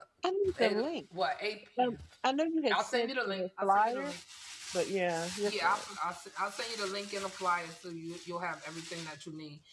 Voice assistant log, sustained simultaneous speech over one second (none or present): present